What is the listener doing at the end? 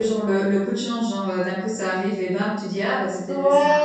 taking over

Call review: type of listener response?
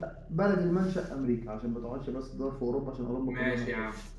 taking over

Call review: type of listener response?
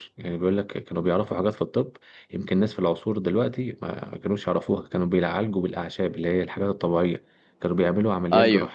listening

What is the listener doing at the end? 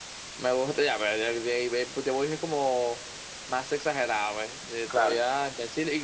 listening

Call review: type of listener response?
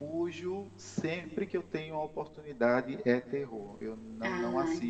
listening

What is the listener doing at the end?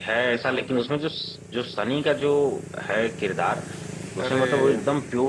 listening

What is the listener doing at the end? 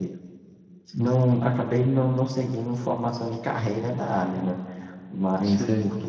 listening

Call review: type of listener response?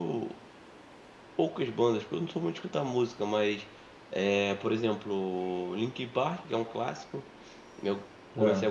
listening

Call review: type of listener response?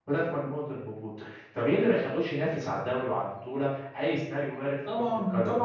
taking over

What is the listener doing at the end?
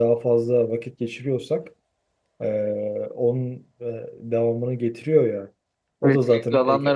taking over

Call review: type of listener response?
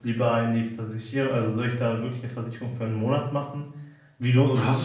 listening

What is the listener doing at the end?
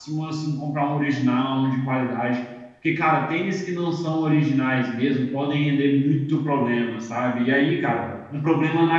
listening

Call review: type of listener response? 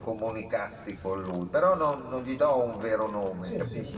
taking over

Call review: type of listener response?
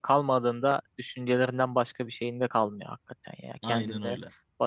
listening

